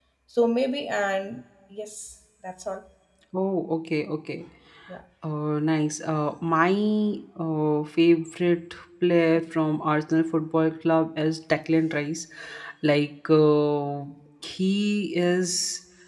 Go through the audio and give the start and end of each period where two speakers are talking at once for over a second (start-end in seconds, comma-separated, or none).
none